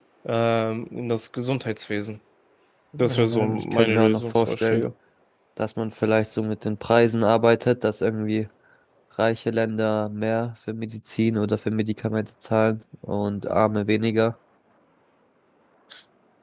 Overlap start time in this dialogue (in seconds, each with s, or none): 3.0 s